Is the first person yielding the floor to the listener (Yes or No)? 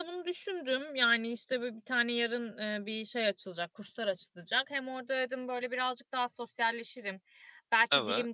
No